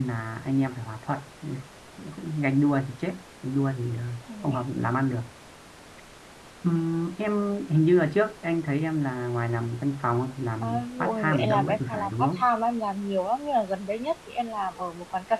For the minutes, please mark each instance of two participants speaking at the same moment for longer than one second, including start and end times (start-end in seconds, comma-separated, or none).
10.6-12.4